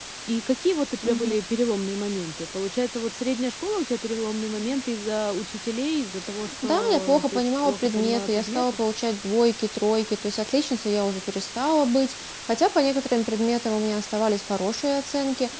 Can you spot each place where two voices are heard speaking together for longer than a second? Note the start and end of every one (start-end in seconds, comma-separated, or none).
6.6-8.7